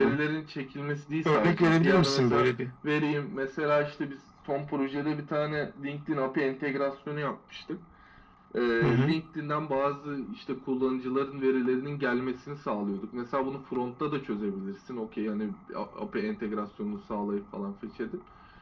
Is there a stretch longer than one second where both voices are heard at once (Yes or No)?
Yes